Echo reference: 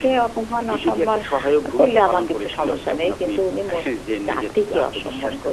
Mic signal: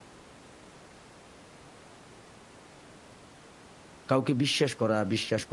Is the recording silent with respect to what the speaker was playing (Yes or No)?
Yes